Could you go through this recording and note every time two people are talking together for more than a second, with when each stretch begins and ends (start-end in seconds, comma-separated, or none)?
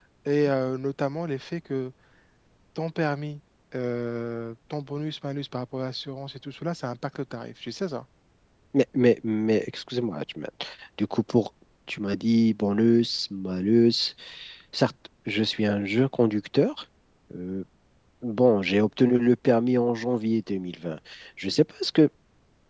none